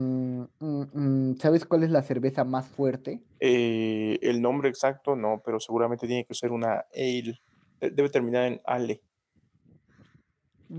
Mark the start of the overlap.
none

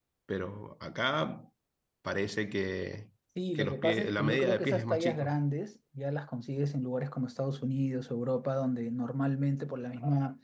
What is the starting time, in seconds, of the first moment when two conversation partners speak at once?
3.5 s

